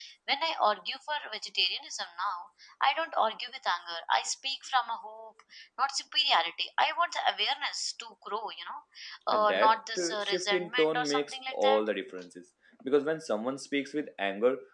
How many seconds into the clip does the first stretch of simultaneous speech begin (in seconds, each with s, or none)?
9.3 s